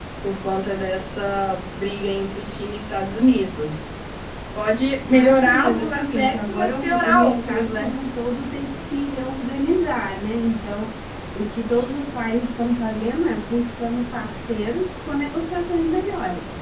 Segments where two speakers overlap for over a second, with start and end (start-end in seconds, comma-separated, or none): 5.1-7.9